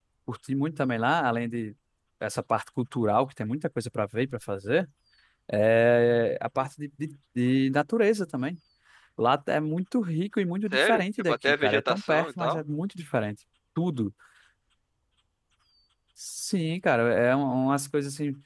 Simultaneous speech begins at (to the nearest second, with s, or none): 11 s